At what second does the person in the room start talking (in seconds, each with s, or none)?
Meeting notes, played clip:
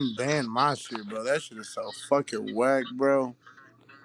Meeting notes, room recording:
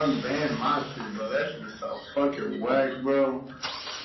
none